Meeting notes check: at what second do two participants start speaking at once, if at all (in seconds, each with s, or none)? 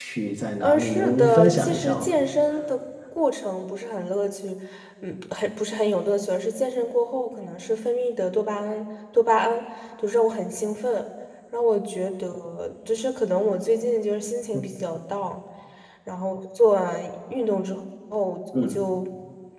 0.6 s